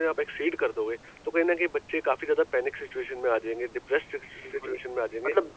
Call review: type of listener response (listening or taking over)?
taking over